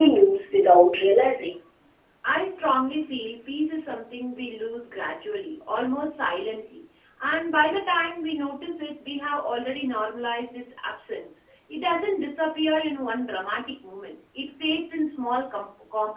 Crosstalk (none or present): none